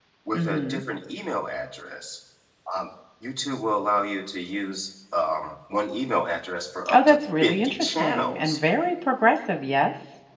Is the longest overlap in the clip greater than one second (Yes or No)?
Yes